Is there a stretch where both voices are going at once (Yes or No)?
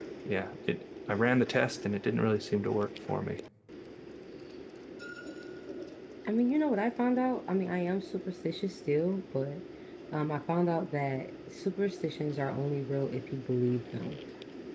No